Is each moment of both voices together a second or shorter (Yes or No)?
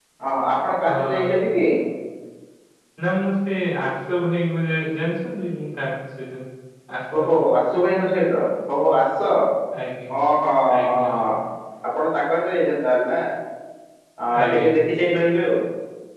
Yes